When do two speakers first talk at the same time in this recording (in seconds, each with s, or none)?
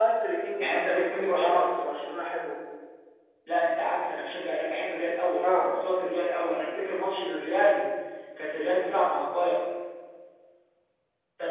0.6 s